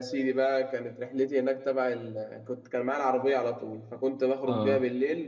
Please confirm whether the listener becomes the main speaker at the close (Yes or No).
No